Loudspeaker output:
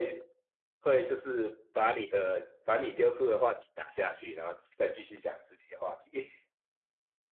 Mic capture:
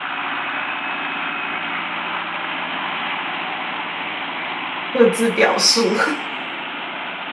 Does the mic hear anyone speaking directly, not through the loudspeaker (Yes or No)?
Yes